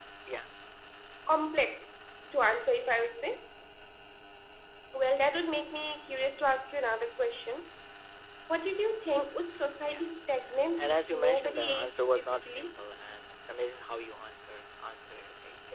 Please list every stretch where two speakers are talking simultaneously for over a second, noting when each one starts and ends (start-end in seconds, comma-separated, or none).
10.4-12.7